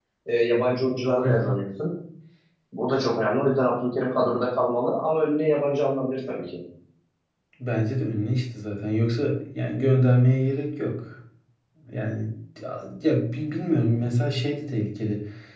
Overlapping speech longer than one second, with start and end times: none

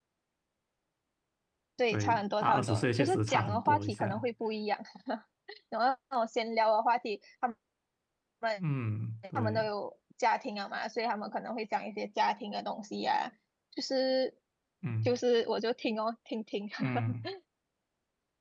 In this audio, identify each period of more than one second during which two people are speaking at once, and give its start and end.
1.9-4.3

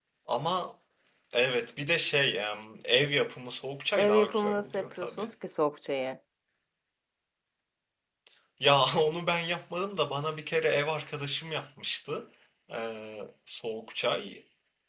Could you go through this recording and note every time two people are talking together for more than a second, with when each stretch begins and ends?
4.0-5.3

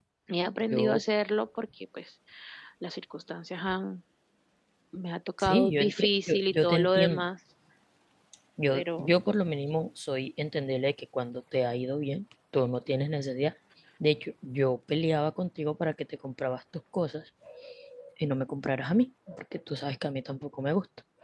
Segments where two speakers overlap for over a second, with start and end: 5.4-7.3

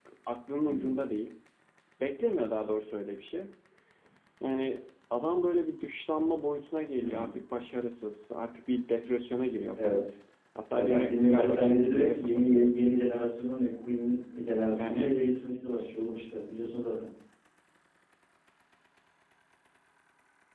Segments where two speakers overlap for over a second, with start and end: 10.7-12.8

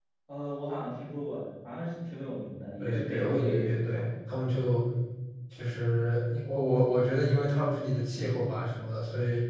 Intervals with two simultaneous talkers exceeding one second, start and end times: 2.8-4.0

